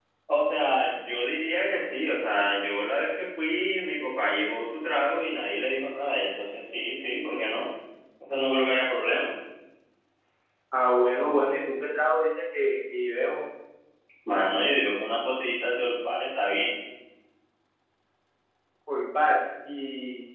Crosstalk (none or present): none